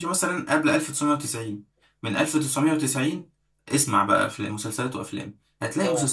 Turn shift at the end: No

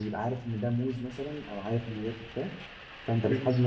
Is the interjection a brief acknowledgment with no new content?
Yes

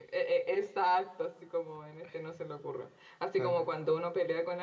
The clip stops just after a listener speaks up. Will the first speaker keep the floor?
Yes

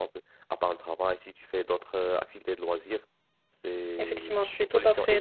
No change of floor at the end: No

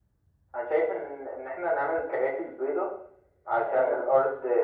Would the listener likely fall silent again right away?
Yes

